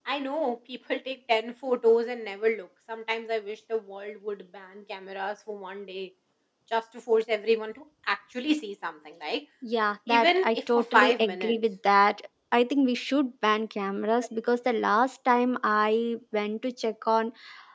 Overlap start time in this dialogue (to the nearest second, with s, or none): 10 s